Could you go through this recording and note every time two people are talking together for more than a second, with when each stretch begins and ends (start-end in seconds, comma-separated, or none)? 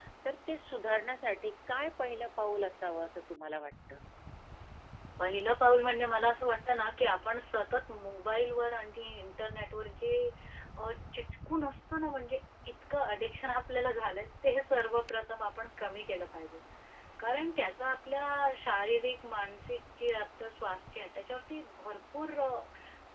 none